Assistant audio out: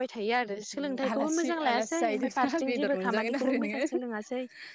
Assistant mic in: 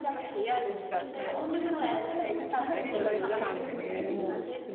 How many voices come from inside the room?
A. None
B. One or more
B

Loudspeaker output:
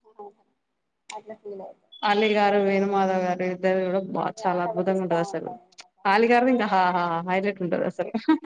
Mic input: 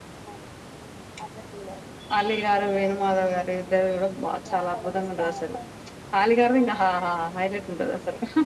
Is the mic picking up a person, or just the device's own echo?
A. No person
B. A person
A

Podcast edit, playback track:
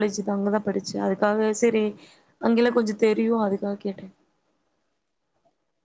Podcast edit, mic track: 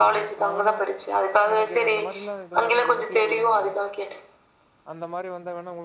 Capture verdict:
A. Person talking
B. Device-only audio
A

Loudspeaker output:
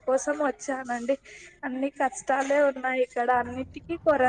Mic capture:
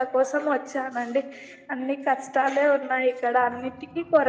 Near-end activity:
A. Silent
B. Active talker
A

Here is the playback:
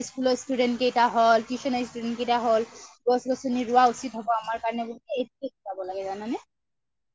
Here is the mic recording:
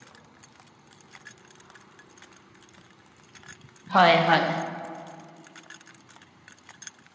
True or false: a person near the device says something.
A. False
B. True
B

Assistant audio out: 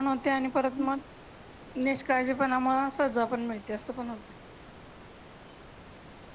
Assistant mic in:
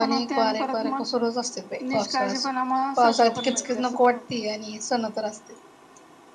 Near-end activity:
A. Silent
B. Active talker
B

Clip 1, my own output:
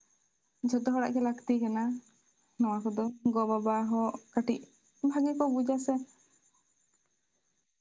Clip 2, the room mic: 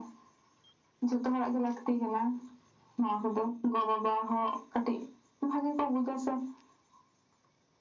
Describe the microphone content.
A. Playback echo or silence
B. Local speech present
A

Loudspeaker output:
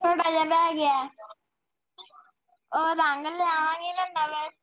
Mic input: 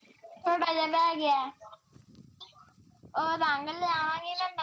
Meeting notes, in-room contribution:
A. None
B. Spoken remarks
A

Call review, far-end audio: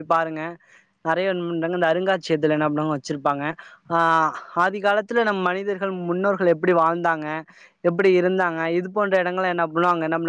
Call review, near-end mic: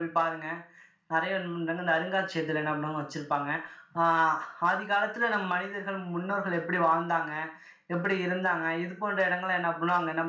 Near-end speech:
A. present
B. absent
B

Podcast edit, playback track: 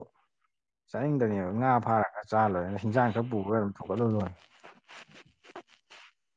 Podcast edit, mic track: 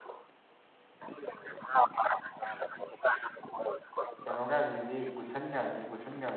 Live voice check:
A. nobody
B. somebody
B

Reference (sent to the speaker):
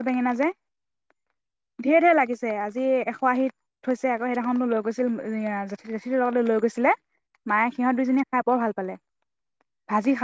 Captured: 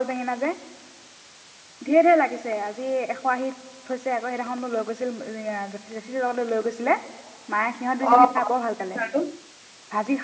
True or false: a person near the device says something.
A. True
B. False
A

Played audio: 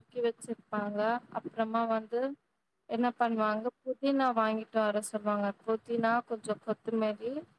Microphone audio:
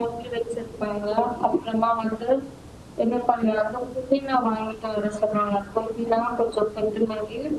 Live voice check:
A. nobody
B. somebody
A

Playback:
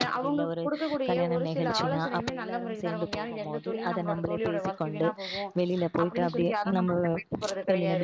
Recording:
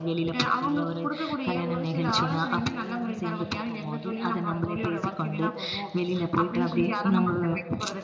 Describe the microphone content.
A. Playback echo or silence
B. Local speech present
A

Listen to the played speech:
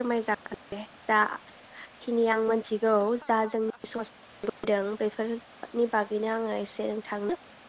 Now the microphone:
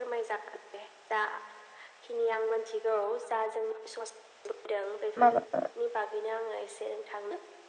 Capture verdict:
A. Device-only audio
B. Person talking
B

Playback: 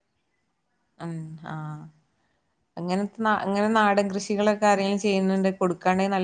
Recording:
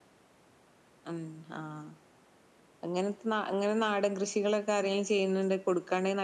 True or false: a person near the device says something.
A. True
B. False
B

